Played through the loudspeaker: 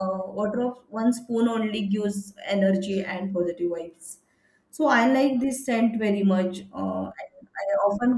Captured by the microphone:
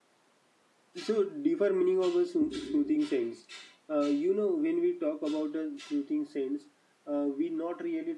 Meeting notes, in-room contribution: present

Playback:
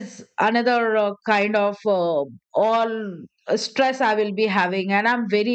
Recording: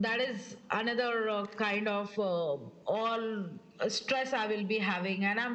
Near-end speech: none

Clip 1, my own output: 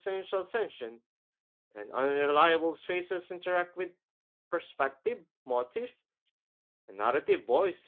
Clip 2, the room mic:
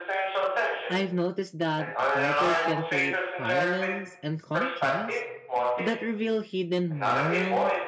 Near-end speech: present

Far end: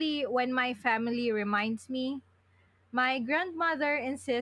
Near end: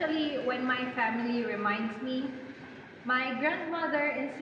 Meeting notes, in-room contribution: none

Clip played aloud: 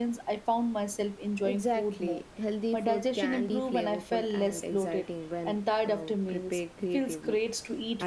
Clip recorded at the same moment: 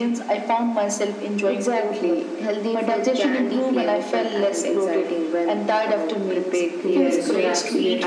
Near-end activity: present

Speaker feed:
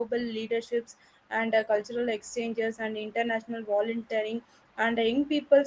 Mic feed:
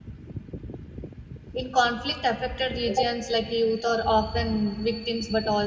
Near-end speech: present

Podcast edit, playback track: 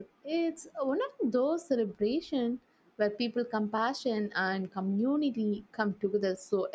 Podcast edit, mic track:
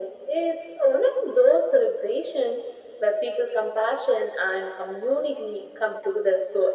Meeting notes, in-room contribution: none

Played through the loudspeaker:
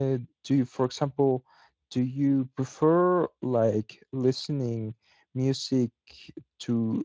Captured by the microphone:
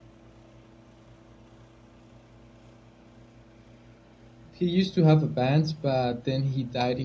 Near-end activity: present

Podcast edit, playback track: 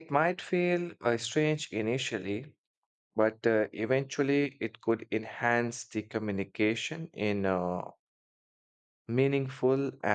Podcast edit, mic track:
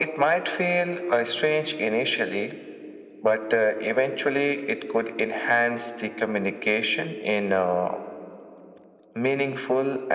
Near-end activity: none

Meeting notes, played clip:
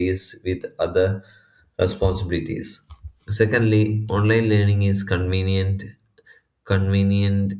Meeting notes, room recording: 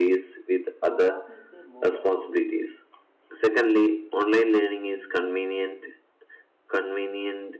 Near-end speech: present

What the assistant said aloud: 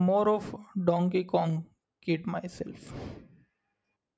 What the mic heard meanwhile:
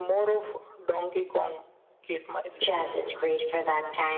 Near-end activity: present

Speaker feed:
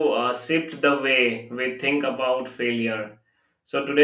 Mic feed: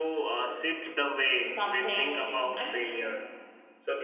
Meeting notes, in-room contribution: present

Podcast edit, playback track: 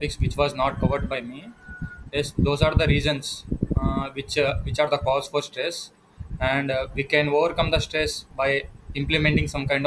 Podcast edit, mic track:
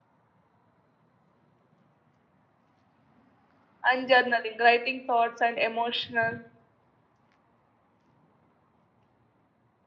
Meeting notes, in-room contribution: present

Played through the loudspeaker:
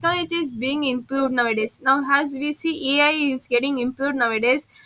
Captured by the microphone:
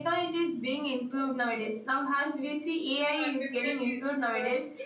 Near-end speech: present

